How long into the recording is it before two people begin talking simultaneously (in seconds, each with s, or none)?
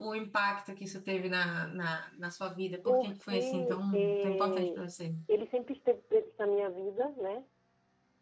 2.8 s